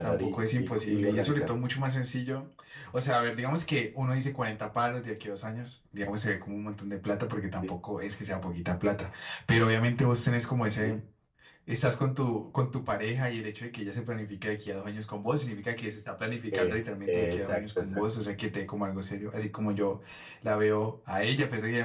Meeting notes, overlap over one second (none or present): present